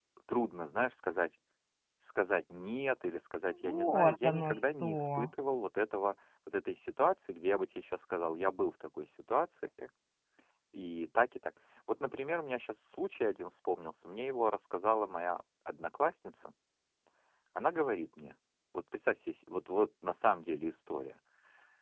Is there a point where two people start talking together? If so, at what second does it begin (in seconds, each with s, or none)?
3.5 s